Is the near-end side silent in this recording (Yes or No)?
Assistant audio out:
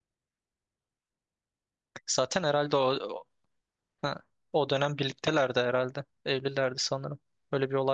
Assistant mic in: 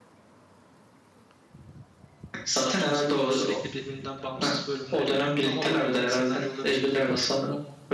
No